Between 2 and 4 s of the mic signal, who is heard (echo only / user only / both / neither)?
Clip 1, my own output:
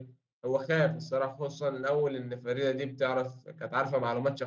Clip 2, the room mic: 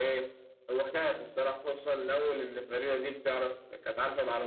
echo only